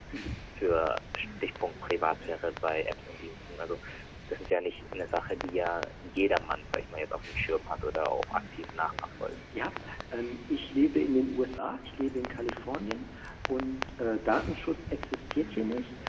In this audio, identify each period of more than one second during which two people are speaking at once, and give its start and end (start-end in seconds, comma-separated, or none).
none